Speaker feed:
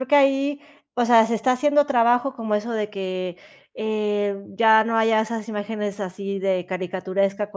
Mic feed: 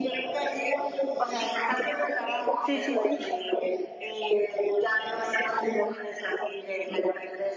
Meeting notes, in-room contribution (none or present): present